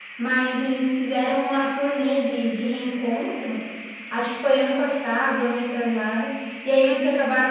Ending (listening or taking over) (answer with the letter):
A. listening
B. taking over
A